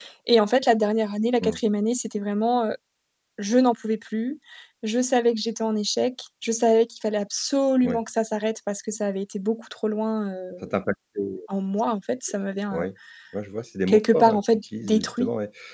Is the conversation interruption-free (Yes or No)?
No